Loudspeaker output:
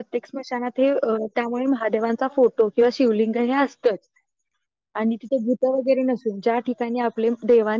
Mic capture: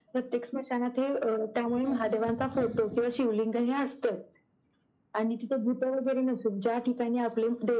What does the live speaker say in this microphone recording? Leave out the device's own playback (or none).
हम्म हम्म हम्म